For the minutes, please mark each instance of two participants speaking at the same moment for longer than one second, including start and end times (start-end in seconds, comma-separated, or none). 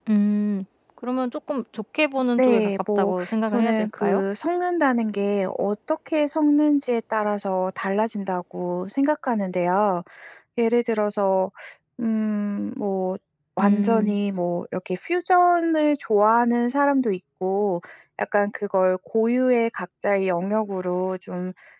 2.4-4.2